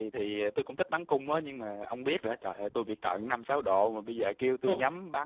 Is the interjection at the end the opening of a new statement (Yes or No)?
No